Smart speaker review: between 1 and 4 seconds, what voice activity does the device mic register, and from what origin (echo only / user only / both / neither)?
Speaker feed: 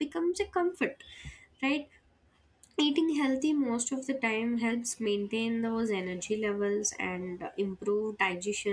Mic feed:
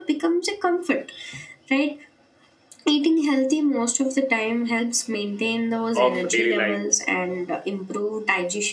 echo only